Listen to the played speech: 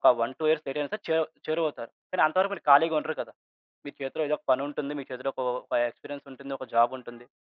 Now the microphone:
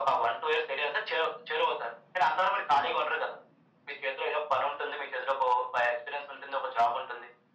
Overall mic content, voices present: echo only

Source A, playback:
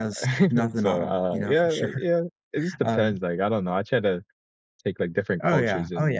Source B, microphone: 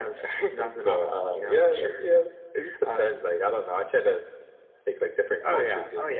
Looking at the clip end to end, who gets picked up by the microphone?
echo only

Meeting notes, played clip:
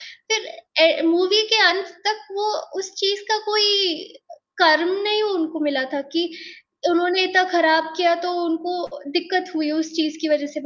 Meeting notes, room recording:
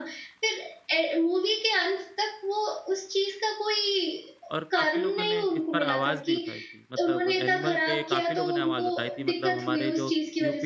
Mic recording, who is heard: both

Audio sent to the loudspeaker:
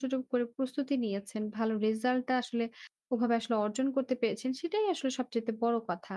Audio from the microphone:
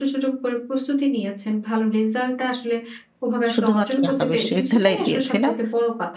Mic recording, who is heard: both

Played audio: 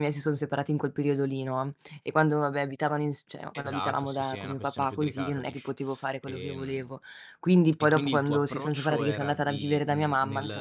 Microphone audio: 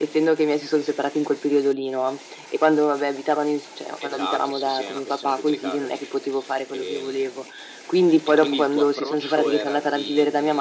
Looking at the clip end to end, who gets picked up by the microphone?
echo only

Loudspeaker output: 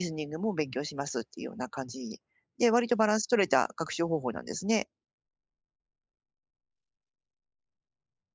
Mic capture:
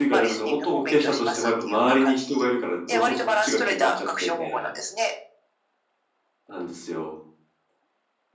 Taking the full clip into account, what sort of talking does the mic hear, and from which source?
both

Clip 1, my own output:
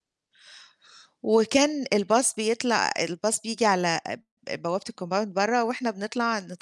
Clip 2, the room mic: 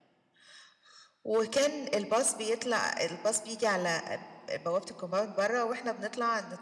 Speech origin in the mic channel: echo only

